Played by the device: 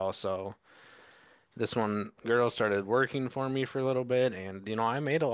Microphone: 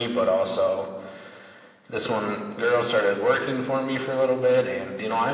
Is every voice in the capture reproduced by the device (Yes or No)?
Yes